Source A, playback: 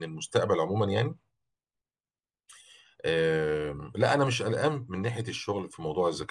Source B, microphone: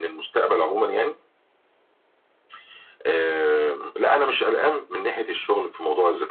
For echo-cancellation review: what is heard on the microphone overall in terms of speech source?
echo only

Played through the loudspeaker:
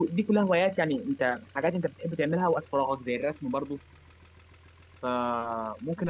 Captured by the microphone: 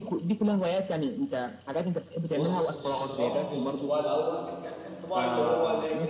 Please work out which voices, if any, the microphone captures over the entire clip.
both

